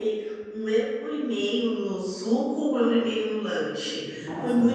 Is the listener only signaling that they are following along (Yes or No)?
Yes